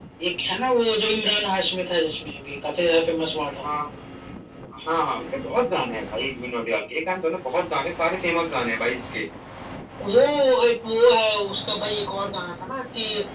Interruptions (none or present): none